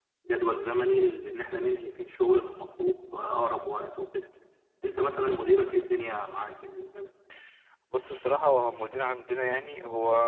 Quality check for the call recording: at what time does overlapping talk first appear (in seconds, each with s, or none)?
none